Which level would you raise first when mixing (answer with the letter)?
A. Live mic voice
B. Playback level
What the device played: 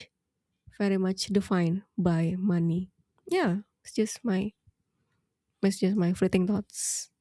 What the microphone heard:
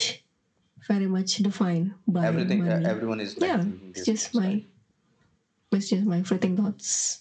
A